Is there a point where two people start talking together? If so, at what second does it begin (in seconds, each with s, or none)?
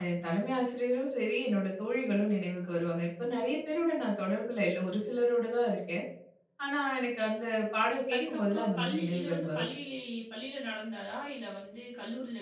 8.1 s